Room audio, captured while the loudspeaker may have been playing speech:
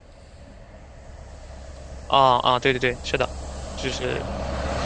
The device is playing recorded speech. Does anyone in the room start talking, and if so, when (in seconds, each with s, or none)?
2.1 s